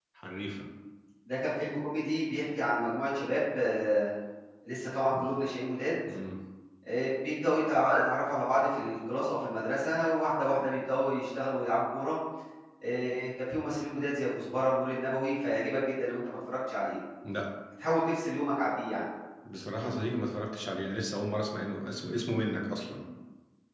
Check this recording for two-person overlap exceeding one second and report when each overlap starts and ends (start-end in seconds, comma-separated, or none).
none